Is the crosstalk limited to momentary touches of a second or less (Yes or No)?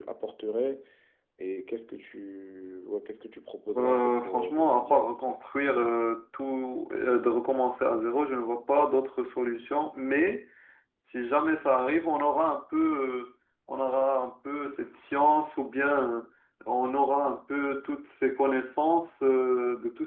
No